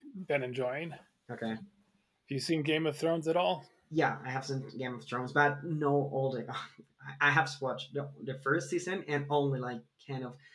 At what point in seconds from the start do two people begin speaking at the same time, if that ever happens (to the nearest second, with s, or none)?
none